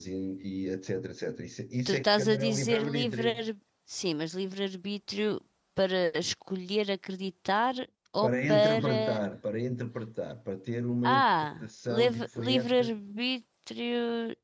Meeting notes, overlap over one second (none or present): present